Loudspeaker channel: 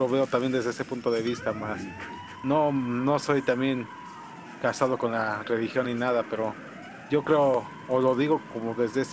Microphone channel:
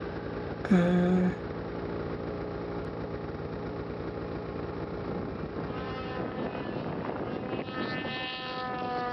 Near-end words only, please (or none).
Mm,